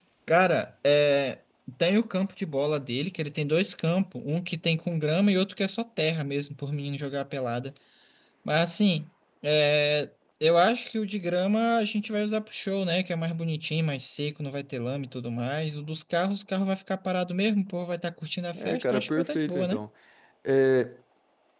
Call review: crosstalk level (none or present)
present